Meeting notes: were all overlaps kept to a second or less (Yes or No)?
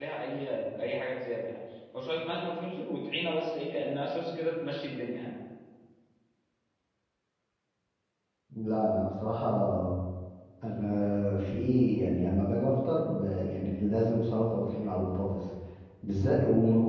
Yes